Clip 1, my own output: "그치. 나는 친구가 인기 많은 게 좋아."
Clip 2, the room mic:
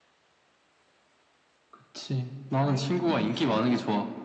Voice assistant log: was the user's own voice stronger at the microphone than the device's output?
No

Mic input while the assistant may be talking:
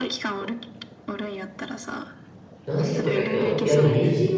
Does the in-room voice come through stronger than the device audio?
Yes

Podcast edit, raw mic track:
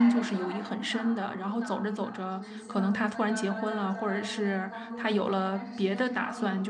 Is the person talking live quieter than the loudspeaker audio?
No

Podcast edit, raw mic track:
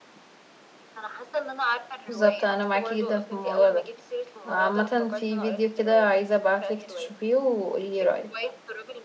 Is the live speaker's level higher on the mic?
Yes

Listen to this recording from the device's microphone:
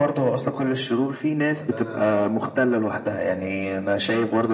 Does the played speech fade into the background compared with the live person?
No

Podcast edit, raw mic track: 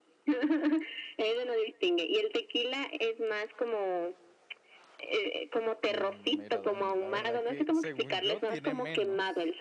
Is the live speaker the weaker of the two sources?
Yes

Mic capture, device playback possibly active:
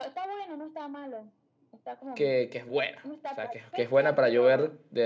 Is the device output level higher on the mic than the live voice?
No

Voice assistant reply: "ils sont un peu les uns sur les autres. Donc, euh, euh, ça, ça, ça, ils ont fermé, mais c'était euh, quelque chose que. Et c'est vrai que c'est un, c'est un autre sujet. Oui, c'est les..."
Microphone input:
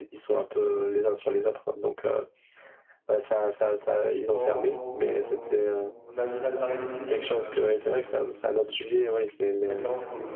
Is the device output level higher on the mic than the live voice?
Yes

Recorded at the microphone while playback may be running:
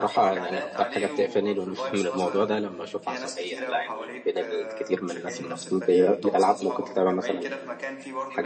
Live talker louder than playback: Yes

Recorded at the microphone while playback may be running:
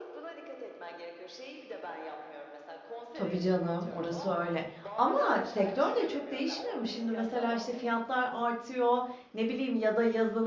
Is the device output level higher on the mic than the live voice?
No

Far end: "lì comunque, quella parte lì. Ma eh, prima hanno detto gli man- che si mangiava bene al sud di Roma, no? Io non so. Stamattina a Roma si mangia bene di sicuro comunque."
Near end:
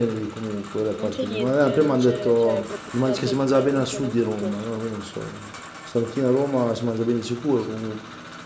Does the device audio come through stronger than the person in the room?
Yes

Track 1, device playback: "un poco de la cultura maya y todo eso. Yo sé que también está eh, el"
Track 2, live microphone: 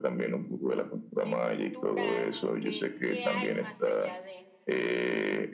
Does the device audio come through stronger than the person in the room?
Yes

